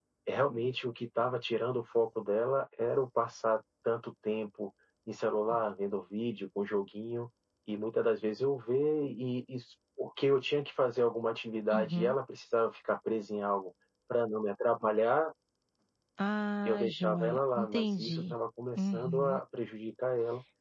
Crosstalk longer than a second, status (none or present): present